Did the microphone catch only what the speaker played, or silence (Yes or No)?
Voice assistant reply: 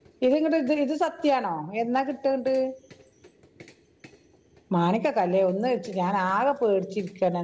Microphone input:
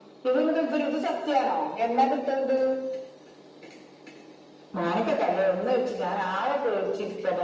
Yes